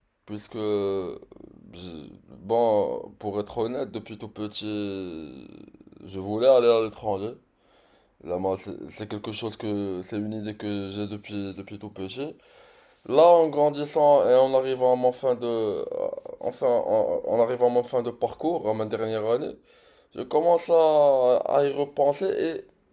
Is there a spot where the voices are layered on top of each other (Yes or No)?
No